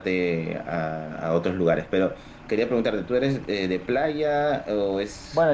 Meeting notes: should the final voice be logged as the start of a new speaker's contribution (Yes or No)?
Yes